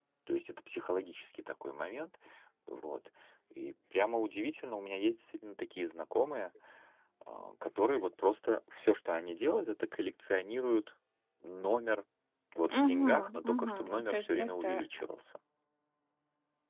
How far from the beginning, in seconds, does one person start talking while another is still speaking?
12.7 s

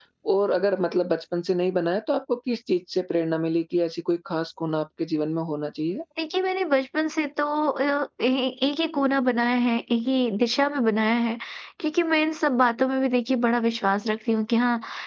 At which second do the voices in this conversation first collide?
none

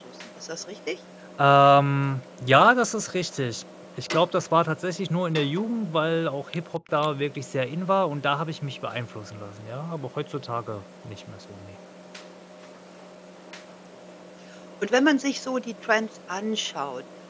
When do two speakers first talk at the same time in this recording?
none

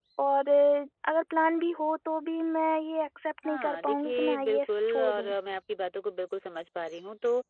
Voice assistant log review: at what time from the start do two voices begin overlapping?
3.4 s

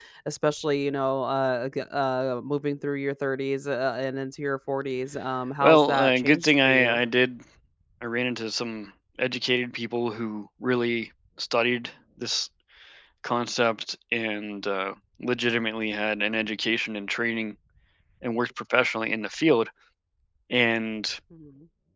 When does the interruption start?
5.6 s

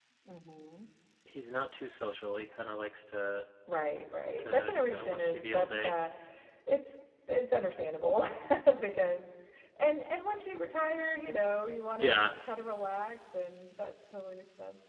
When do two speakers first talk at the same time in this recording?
4.4 s

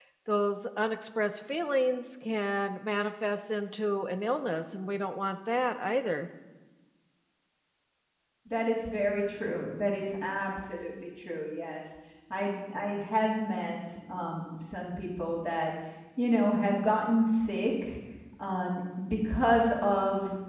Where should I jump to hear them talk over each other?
none

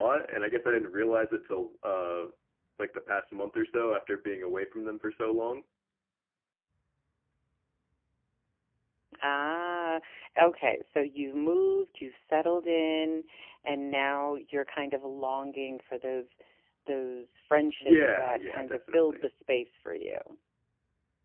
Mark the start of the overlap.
17.8 s

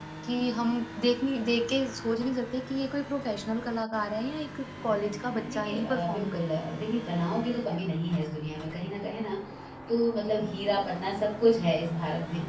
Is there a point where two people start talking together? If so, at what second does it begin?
4.8 s

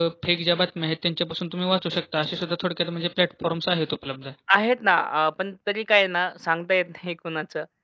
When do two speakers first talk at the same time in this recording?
none

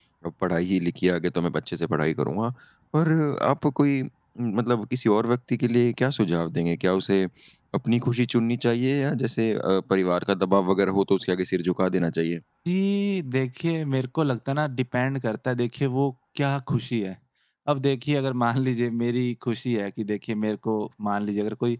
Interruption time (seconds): none

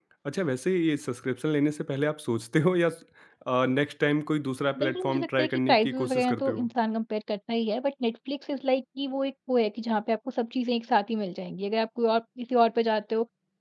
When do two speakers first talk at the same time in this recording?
4.8 s

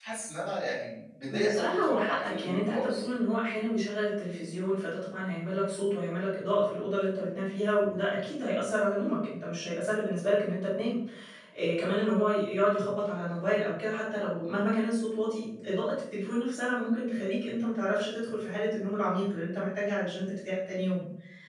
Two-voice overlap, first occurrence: 1.3 s

